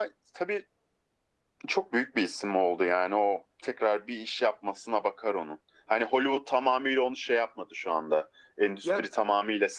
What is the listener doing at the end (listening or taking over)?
listening